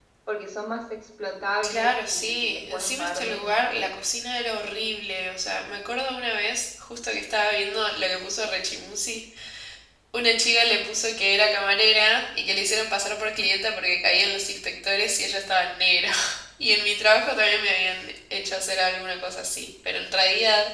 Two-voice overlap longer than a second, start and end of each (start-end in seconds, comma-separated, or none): 1.7-3.6